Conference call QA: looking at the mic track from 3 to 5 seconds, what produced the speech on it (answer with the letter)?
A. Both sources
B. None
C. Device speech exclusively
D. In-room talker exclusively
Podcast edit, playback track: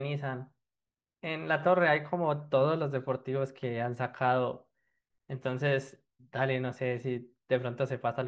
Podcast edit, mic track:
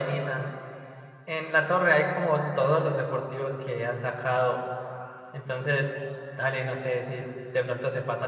C